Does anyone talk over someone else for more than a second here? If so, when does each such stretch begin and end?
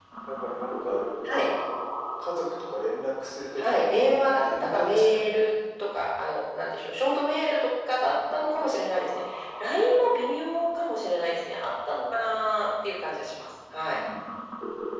3.6-5.5

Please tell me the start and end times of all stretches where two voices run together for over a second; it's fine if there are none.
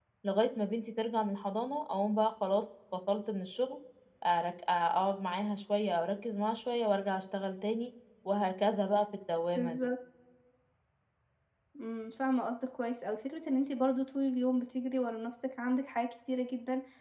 none

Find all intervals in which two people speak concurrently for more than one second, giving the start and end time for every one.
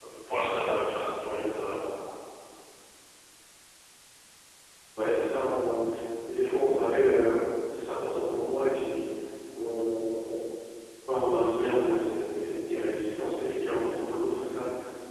none

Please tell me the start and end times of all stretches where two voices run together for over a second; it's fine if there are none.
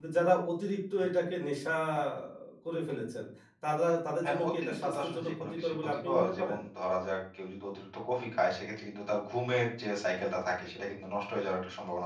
4.2-6.6

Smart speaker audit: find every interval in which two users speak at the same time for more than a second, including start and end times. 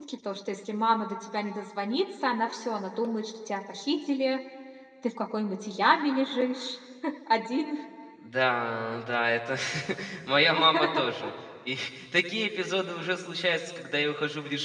none

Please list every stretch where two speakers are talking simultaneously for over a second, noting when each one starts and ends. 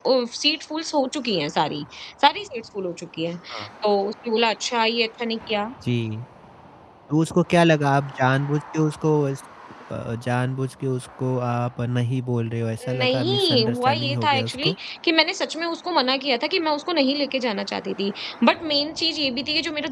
13.0-14.8

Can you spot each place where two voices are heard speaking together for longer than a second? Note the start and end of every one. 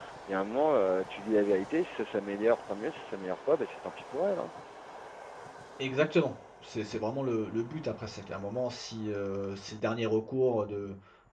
none

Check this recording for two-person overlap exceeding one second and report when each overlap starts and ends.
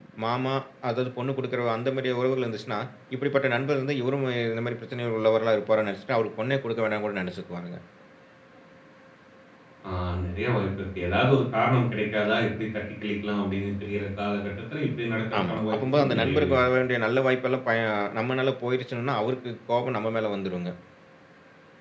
15.4-16.6

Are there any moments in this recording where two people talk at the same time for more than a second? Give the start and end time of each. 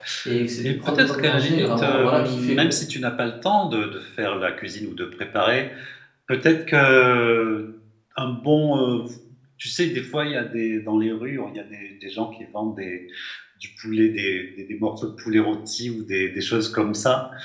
0.6-2.7

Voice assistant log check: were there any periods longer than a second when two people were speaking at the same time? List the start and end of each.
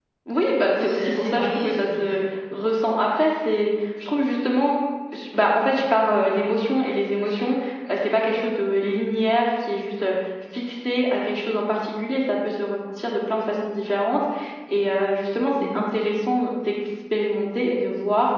0.7-2.2

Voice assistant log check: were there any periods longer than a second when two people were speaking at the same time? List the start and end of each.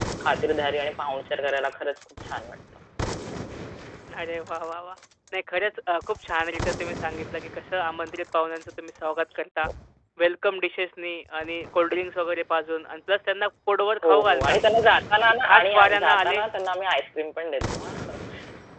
15.2-16.4

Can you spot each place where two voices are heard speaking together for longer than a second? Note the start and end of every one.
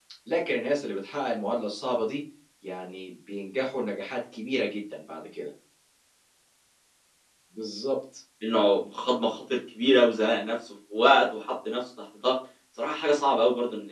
none

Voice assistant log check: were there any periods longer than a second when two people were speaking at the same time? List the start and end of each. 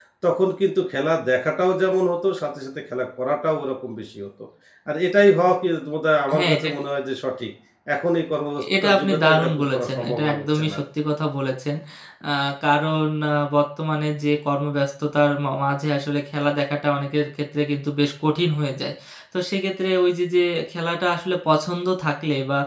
8.7-10.8

